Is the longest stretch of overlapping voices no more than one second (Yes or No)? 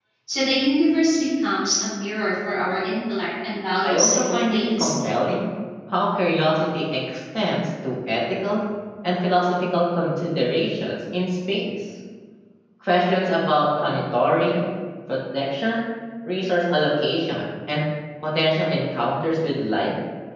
No